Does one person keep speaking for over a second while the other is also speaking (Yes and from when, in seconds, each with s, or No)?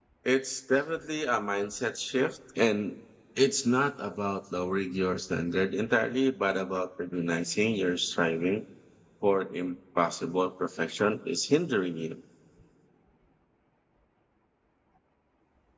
No